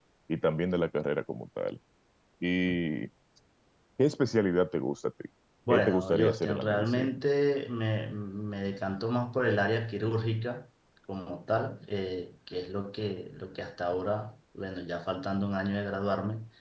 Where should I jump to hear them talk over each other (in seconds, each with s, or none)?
5.7 s